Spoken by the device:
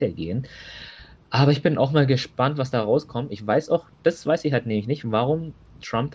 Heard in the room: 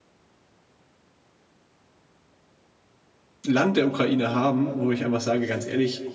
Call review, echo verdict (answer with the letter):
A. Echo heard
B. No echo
B